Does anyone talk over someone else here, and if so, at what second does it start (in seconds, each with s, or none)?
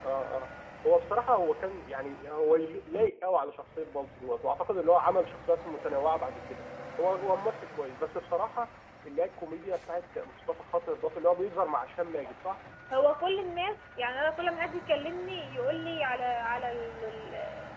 none